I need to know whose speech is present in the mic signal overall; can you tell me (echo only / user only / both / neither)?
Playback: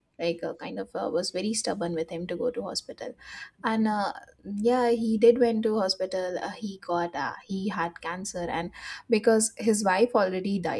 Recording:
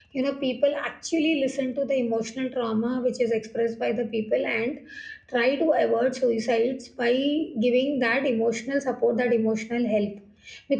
user only